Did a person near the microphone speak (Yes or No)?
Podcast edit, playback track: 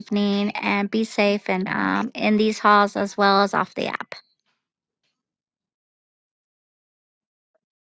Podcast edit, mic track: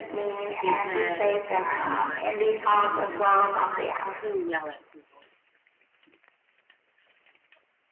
Yes